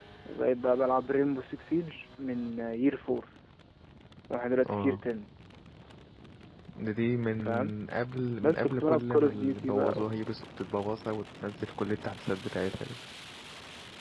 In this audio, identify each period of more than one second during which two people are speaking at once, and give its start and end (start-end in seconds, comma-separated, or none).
8.4-10.2